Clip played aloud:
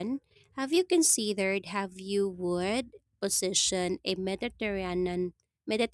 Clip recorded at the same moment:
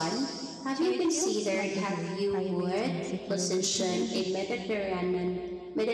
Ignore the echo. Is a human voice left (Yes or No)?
Yes